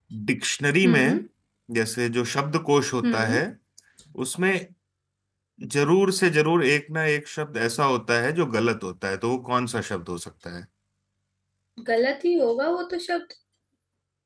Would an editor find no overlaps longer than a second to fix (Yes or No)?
Yes